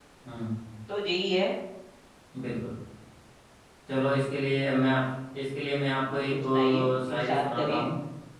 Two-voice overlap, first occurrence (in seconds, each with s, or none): 6.1 s